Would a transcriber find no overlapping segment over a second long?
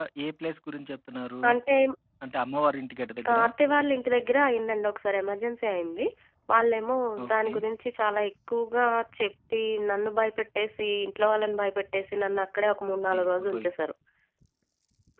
Yes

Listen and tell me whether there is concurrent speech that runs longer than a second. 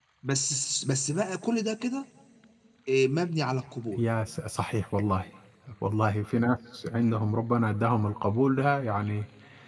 No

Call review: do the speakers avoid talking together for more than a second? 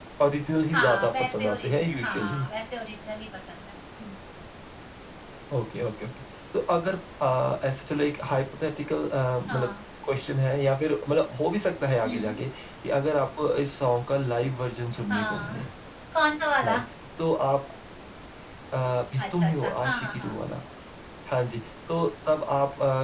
No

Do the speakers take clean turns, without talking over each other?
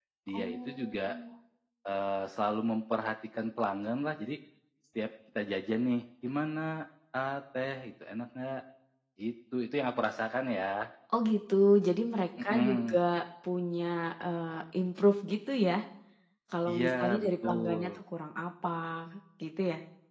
No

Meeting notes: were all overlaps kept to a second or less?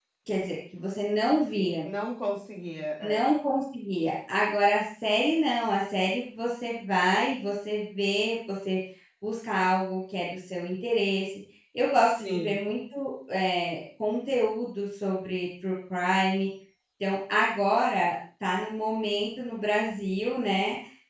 Yes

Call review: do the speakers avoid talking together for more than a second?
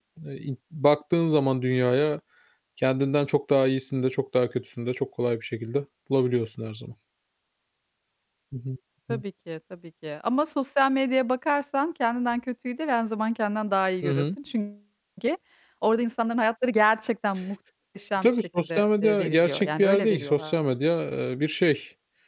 No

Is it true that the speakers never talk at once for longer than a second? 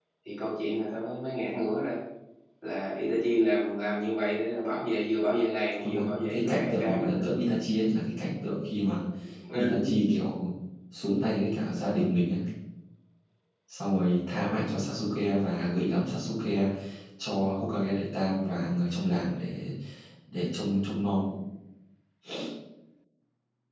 No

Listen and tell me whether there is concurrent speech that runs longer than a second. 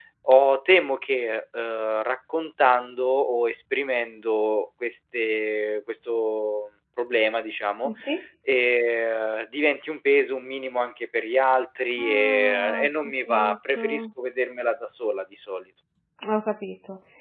Yes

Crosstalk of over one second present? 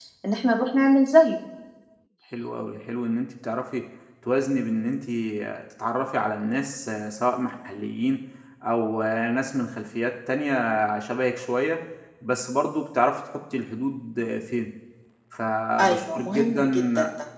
Yes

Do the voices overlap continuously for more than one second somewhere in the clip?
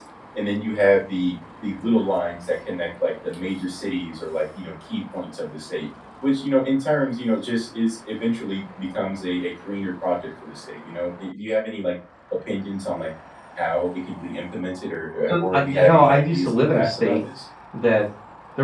Yes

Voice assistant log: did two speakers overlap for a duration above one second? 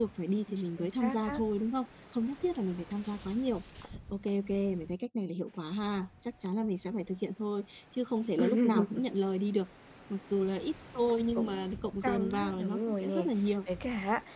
Yes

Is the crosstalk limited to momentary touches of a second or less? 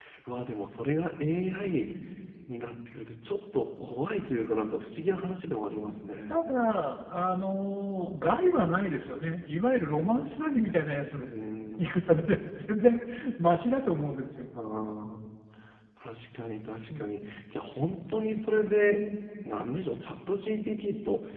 Yes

